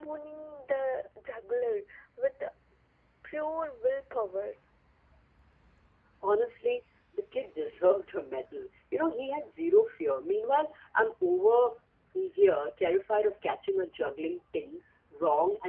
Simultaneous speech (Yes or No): No